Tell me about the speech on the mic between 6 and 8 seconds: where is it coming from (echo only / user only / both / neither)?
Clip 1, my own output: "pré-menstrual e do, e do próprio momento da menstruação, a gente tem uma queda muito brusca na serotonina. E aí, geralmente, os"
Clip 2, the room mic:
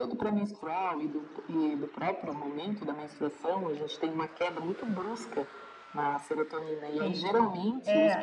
both